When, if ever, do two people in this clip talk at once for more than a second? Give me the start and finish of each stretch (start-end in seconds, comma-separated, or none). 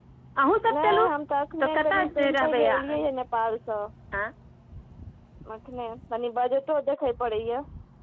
1.6-3.0